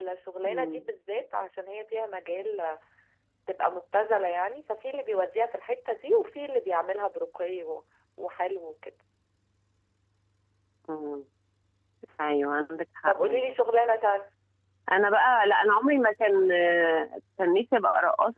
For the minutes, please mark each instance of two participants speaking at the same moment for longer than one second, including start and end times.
none

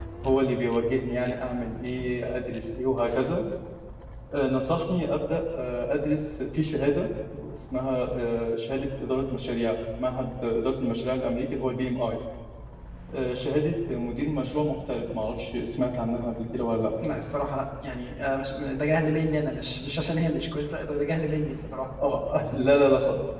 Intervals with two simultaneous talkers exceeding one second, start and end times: none

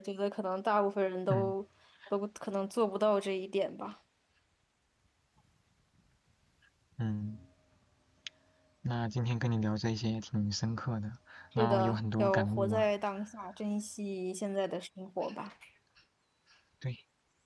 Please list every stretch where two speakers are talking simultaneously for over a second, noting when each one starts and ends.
11.6-12.9

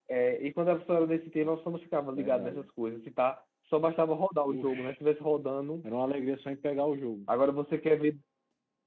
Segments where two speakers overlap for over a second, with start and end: none

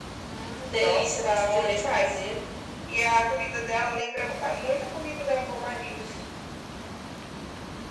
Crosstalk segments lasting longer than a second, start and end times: 0.8-2.1

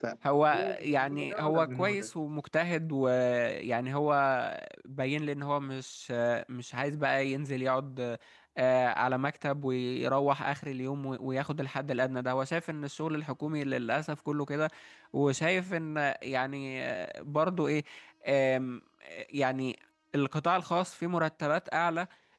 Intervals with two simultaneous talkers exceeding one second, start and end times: 0.8-2.1

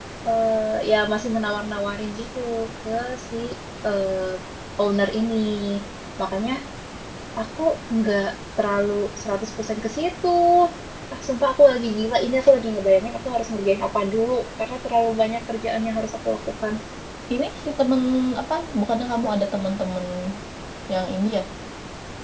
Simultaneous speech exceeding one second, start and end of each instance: none

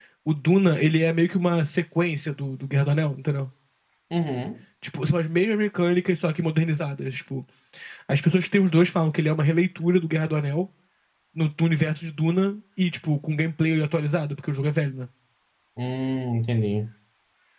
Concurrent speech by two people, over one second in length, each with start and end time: none

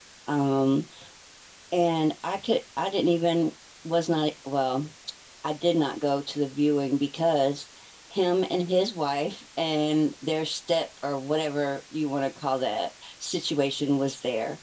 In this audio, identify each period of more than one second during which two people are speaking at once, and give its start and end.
none

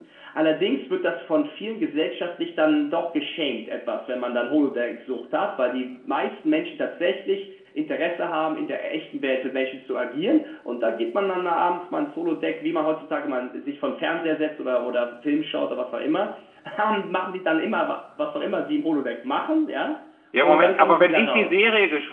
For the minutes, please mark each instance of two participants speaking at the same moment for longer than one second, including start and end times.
20.4-21.6

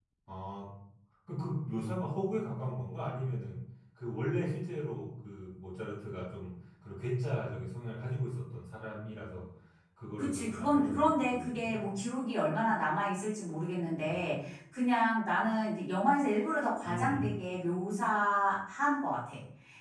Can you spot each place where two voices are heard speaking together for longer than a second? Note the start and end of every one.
10.2-11.8

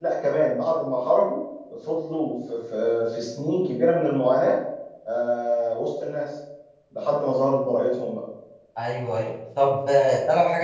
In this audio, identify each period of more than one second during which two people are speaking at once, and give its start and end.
none

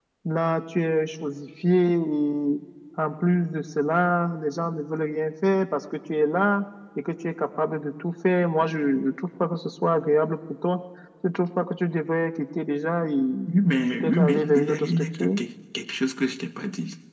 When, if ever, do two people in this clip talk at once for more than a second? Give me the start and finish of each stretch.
13.9-15.3

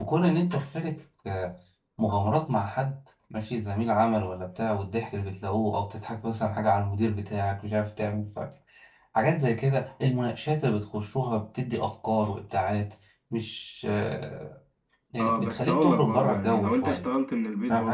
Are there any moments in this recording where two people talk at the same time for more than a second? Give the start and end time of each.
15.2-17.1

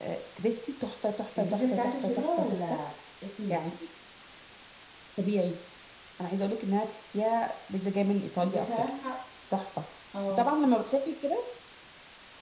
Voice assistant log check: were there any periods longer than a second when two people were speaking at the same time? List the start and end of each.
1.4-2.6

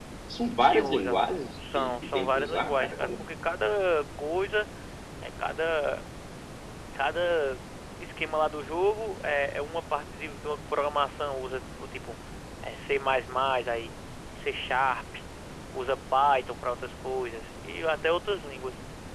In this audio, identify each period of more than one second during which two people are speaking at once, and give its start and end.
1.7-3.1

